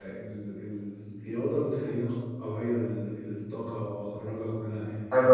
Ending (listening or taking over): taking over